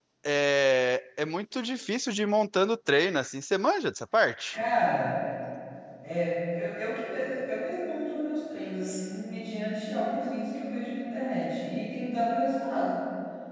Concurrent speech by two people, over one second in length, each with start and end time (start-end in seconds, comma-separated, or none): none